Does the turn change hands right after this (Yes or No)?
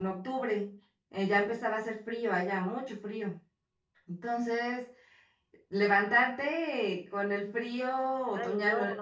Yes